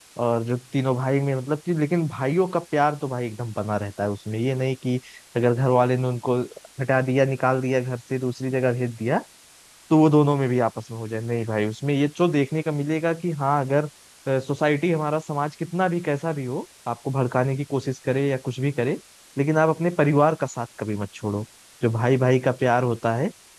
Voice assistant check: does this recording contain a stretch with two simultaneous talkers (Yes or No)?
No